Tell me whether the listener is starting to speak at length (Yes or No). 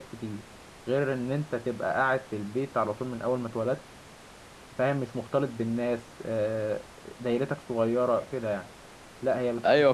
No